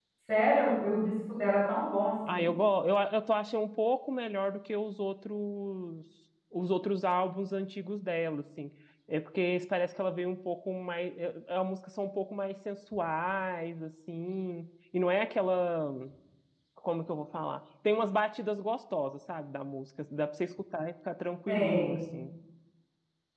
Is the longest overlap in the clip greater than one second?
No

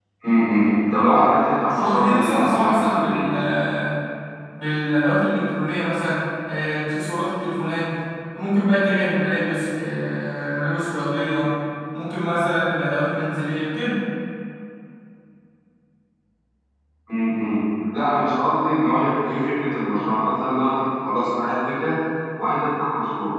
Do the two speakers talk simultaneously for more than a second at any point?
Yes, from 1.7 s

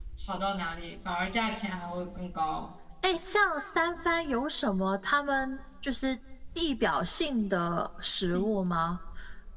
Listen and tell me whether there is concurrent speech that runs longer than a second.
No

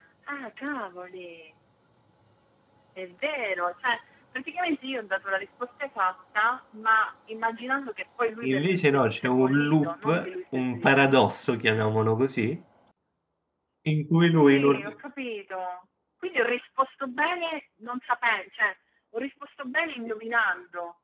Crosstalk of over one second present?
Yes, from 8.4 s

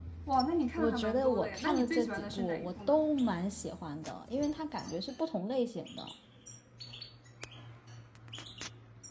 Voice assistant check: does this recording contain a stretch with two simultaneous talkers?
Yes, from 0.8 s

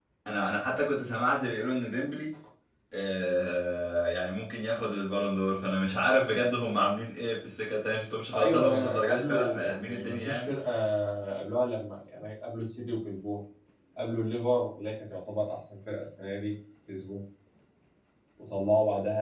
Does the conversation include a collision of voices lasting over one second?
Yes, from 8.3 s

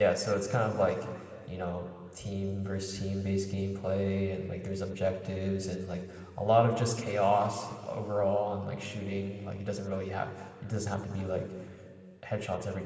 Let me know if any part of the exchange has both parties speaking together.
No

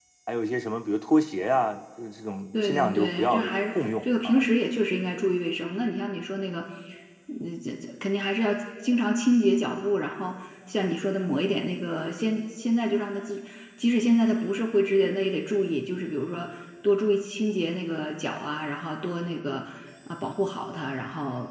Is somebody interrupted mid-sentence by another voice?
Yes, from 2.5 s

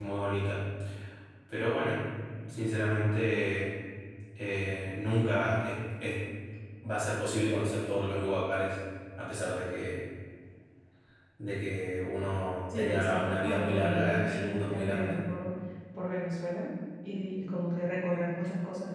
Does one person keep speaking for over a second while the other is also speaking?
Yes, from 12.7 s

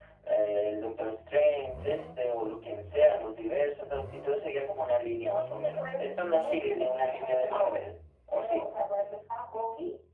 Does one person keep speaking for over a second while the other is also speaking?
Yes, from 5.8 s

